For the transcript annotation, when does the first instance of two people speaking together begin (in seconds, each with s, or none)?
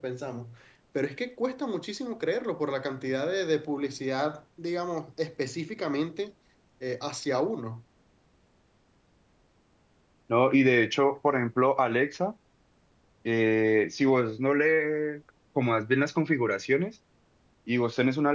none